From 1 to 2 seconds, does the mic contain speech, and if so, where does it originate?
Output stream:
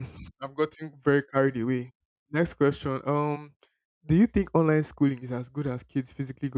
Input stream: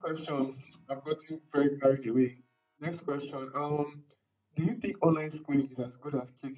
echo only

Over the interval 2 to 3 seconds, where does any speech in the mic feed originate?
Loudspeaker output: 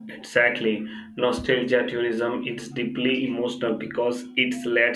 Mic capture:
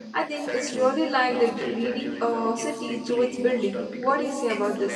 both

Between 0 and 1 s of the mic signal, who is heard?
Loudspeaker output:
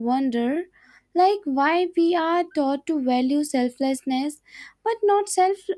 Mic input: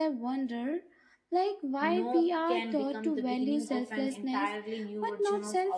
echo only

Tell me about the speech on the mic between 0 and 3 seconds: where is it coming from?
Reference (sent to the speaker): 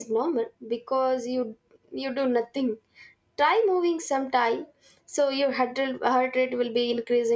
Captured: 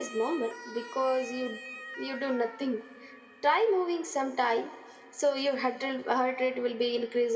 echo only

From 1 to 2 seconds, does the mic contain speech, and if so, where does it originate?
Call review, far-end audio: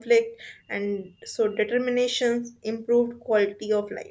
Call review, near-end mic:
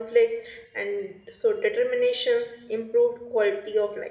echo only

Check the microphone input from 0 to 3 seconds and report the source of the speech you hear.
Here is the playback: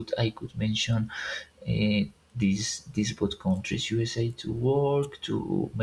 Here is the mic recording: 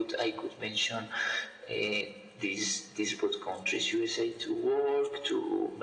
echo only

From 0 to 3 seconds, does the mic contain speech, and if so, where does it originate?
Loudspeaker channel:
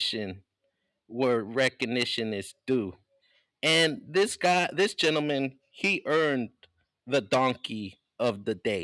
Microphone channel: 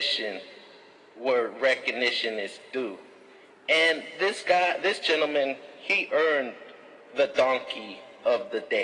echo only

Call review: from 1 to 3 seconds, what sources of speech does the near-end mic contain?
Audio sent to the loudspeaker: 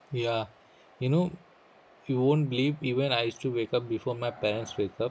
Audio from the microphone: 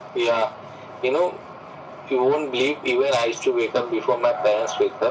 echo only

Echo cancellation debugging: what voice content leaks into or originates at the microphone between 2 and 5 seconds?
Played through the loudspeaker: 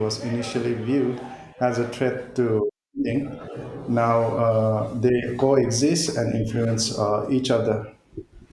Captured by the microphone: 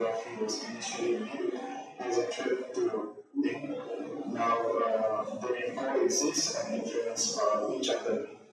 echo only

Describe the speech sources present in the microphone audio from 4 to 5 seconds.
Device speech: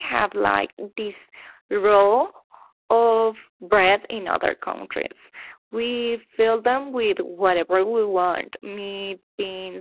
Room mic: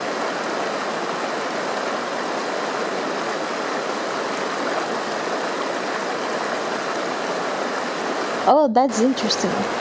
neither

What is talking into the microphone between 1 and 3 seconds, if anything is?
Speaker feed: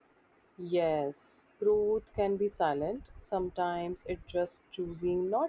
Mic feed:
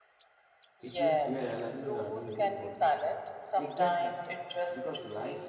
both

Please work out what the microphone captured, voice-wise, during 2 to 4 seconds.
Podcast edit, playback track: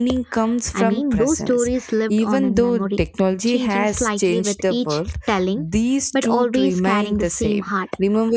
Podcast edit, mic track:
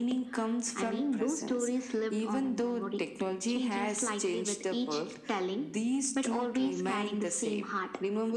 echo only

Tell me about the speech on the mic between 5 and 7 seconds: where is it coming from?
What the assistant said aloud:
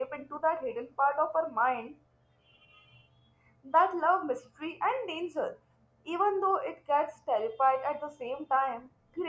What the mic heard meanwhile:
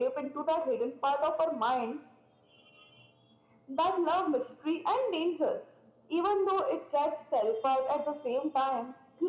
echo only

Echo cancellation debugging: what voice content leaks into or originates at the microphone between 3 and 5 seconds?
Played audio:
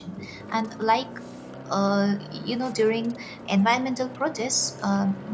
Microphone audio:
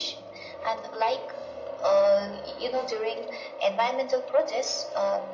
echo only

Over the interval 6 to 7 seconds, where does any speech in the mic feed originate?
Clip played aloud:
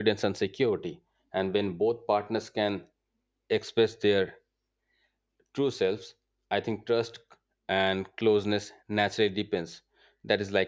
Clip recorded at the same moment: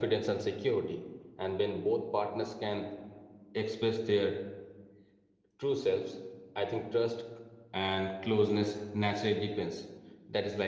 echo only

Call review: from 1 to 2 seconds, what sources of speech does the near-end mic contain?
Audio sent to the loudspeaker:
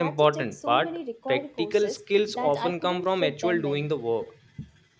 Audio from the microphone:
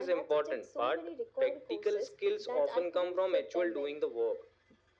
echo only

